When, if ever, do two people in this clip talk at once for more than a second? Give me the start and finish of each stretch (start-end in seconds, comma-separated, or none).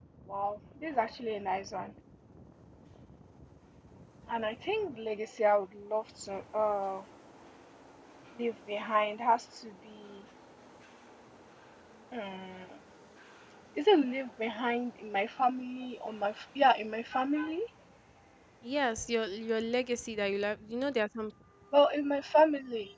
none